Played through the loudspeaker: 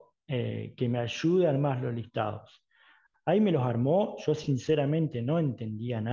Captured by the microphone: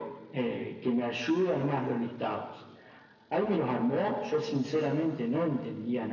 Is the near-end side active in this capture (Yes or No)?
No